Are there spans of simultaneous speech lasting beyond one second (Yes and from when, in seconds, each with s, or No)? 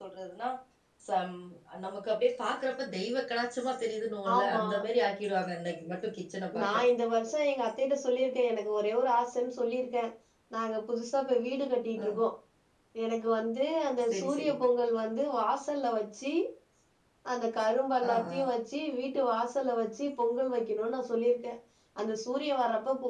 No